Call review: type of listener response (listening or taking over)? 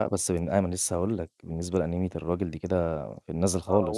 taking over